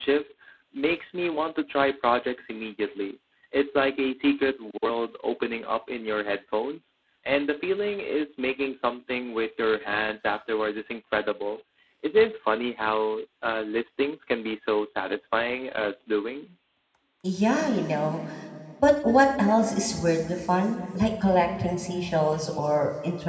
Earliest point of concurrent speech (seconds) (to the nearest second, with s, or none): none